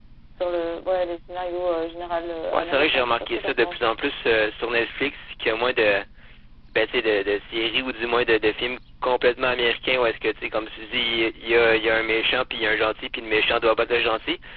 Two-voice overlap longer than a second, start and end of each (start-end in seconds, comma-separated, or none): 2.5-3.8